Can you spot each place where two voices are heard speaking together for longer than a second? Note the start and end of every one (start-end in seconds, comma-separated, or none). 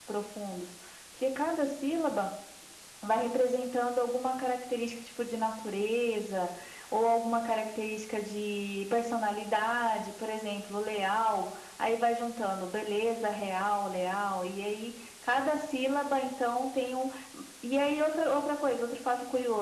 none